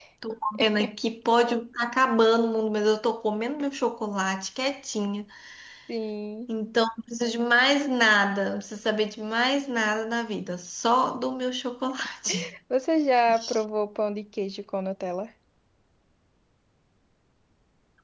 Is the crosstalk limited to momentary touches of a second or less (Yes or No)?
Yes